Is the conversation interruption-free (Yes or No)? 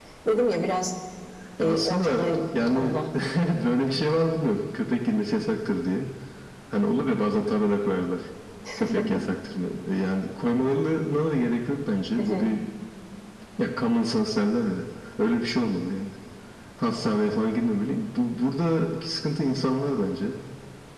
No